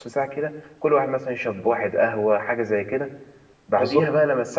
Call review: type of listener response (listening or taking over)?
listening